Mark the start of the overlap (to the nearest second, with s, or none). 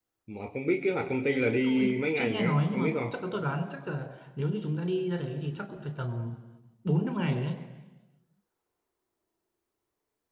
2 s